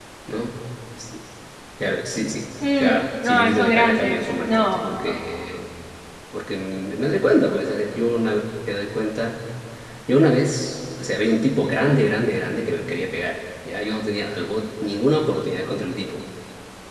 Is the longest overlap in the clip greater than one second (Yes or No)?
Yes